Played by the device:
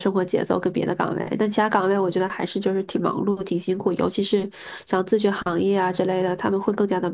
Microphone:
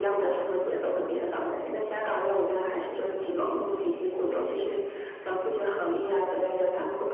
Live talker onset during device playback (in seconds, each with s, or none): none